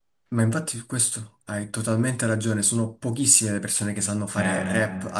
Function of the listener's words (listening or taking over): listening